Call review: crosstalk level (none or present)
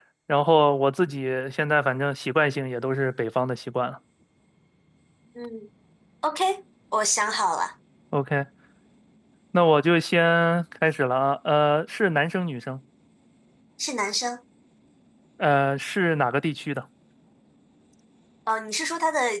none